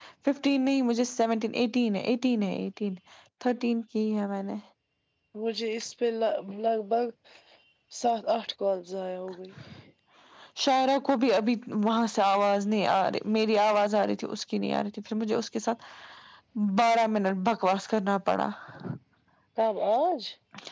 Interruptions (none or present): none